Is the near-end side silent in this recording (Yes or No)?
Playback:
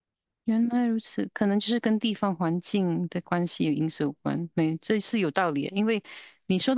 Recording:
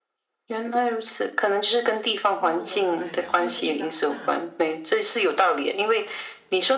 No